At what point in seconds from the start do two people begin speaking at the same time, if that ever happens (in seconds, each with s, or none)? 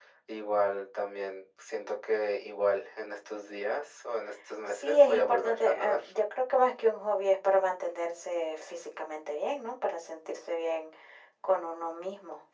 4.7 s